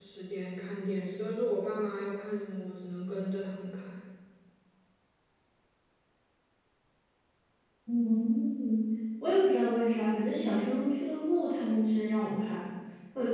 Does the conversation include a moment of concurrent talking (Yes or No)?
No